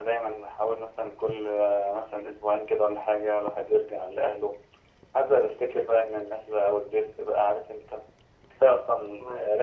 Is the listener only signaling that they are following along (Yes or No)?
Yes